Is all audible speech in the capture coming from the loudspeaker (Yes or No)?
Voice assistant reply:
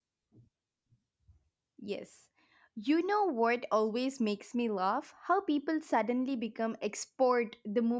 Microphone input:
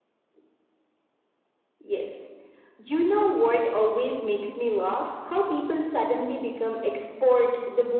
Yes